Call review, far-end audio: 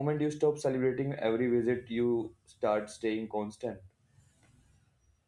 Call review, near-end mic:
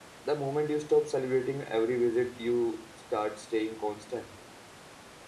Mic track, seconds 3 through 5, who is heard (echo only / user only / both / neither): echo only